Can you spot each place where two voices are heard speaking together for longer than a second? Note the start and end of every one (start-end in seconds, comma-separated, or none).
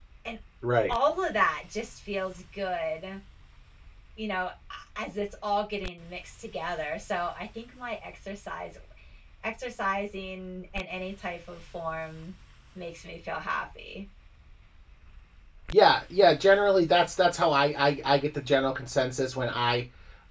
none